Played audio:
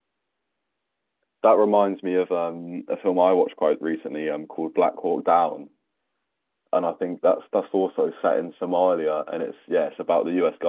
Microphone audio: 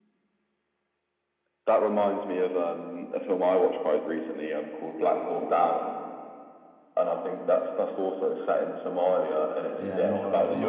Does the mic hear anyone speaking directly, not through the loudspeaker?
Yes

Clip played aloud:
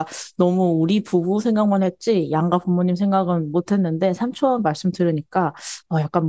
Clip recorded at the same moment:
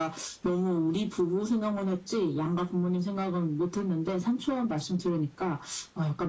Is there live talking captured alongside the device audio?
No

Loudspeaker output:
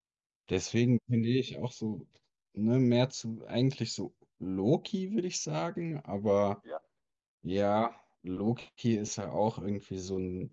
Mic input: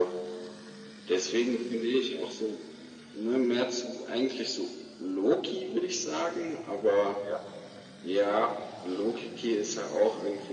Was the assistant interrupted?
No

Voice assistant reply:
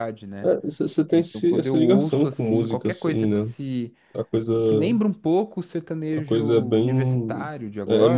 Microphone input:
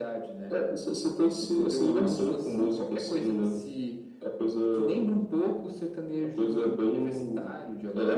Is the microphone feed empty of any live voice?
Yes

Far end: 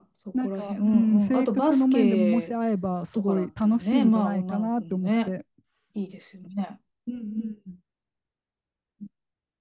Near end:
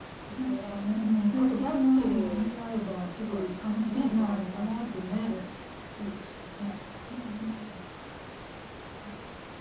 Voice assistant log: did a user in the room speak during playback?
No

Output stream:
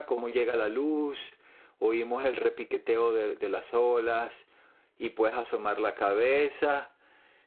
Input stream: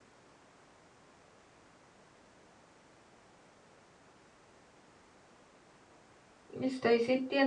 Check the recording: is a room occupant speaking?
Yes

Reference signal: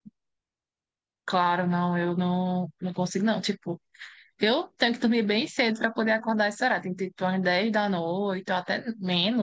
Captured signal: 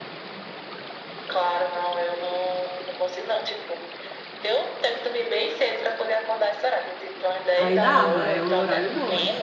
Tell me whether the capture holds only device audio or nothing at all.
No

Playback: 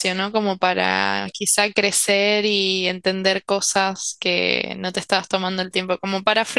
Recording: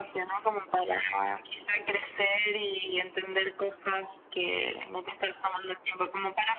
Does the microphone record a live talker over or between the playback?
No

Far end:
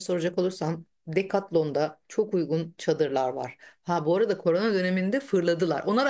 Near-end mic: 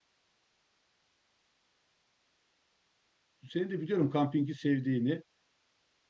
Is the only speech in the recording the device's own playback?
No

